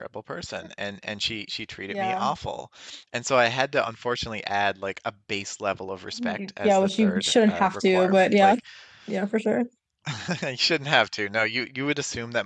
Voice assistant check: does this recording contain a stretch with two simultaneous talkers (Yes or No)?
Yes